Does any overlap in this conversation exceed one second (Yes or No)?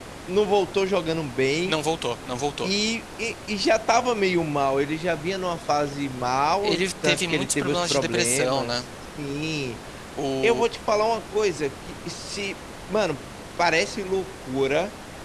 Yes